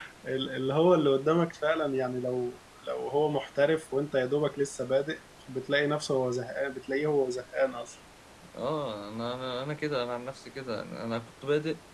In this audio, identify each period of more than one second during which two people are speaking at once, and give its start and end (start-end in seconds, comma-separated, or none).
none